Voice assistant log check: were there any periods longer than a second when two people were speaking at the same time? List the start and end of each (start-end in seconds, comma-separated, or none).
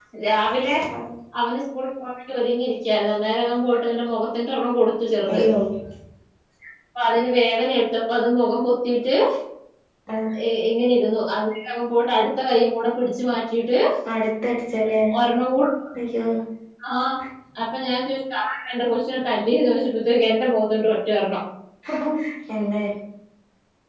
none